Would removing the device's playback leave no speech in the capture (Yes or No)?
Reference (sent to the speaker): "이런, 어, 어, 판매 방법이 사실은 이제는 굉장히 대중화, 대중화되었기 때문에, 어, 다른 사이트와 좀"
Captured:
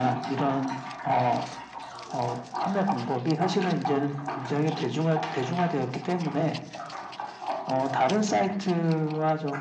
Yes